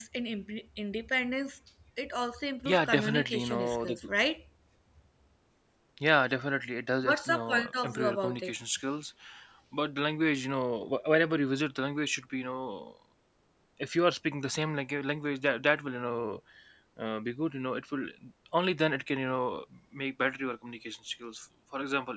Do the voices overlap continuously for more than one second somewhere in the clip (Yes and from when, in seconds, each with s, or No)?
Yes, from 2.6 s